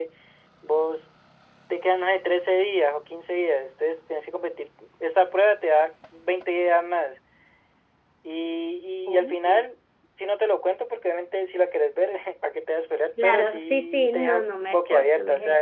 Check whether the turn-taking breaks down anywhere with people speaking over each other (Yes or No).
Yes